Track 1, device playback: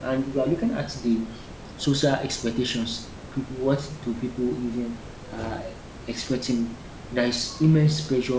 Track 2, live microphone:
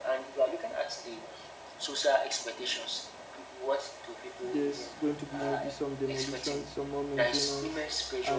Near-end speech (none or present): present